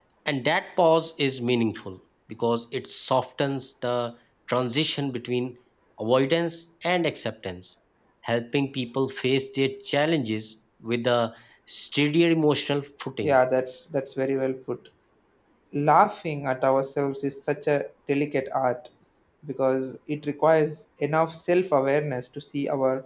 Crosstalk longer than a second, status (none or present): none